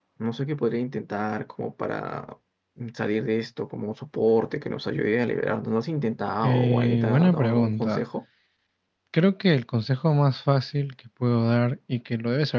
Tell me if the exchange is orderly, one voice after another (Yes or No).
No